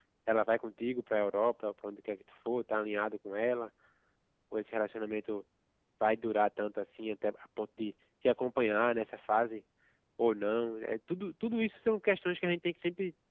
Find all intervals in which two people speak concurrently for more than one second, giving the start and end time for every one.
none

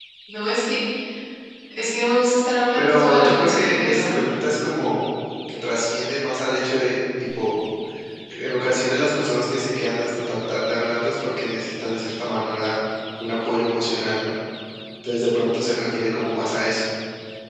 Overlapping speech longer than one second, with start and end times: 2.8-4.2

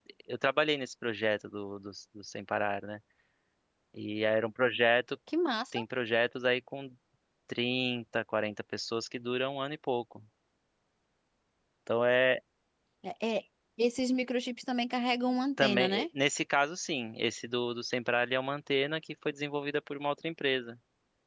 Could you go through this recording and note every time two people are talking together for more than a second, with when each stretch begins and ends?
none

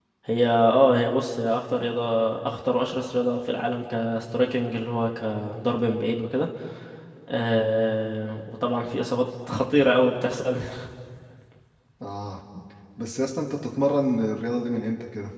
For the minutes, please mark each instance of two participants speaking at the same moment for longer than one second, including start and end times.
none

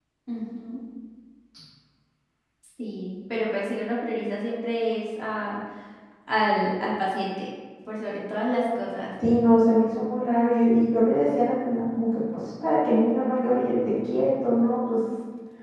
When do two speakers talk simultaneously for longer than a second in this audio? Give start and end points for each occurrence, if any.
none

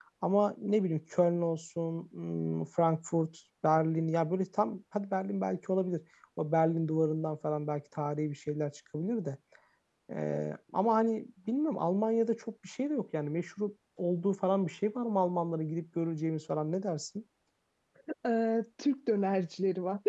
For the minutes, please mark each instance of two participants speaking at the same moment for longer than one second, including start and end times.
none

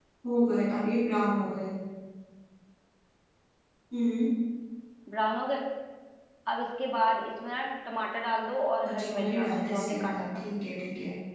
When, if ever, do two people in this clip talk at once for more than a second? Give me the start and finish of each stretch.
8.9-10.4

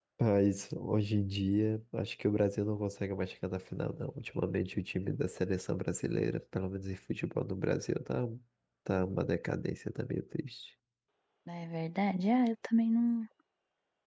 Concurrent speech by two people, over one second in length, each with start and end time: none

